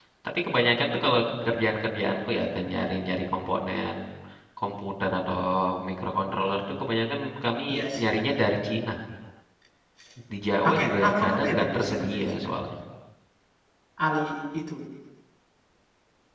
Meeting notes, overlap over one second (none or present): present